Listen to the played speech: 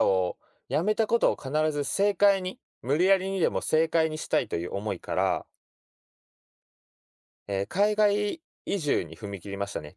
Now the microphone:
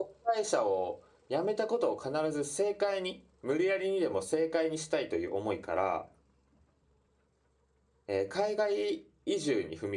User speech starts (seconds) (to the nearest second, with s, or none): none